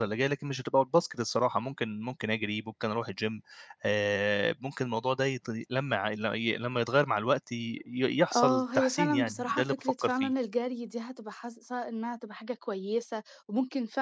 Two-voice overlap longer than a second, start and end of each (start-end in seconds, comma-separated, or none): 8.3-10.3